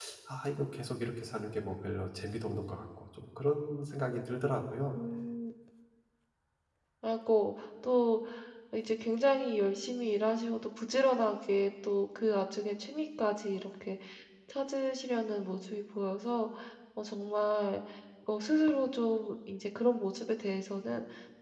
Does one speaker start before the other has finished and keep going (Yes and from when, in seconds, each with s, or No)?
No